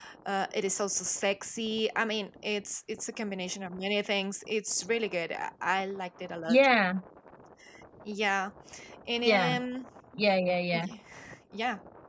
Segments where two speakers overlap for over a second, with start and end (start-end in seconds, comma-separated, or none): none